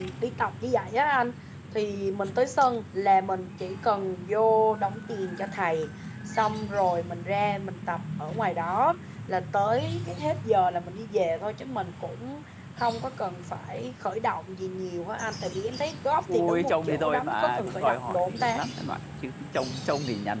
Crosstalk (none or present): present